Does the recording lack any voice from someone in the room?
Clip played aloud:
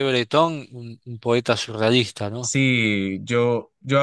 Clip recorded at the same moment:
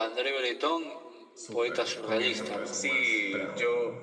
No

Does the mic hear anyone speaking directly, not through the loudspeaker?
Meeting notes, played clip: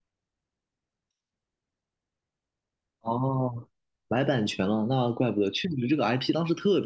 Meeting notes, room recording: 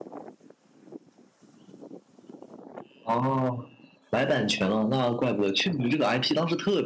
No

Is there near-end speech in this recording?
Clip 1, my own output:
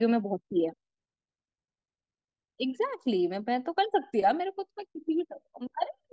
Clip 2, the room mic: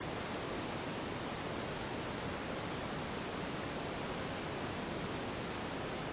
No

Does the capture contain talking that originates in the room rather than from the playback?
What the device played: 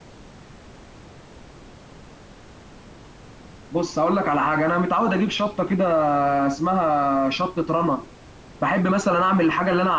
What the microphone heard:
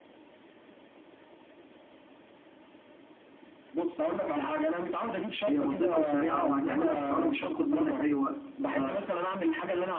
Yes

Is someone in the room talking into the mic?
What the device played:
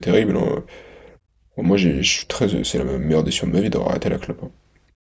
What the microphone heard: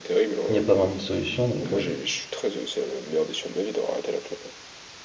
Yes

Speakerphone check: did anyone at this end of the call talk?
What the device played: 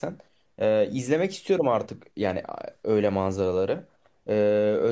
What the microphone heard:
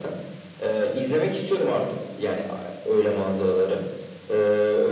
No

